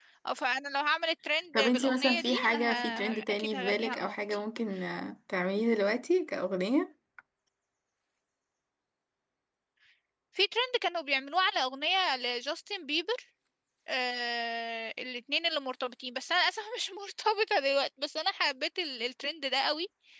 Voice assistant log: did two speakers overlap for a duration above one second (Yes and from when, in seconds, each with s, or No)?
Yes, from 1.5 s